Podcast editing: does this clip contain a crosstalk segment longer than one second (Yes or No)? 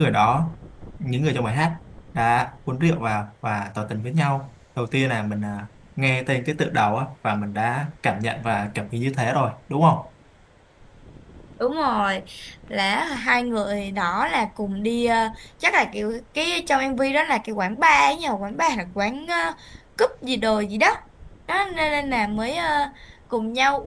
No